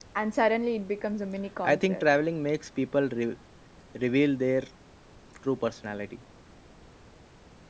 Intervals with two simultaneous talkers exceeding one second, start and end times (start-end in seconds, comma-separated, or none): none